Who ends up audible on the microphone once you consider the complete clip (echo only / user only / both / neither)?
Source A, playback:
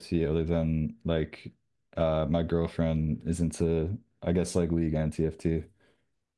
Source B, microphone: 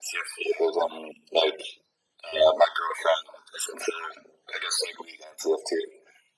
echo only